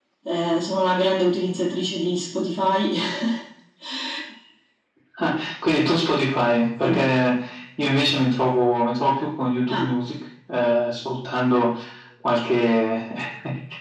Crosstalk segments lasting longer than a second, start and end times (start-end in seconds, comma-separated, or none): none